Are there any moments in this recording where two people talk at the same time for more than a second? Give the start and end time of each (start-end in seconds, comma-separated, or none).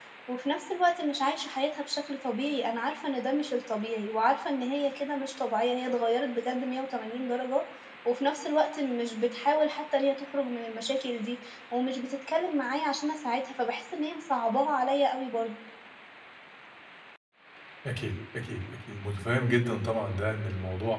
none